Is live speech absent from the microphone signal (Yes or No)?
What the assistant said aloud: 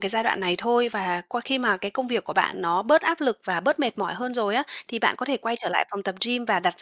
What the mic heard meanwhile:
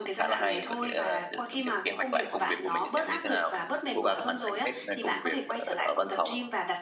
No